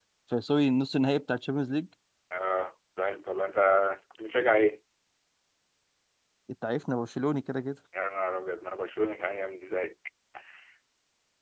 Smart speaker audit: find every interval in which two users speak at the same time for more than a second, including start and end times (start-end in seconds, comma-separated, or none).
none